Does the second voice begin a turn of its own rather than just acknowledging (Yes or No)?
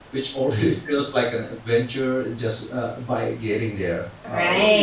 Yes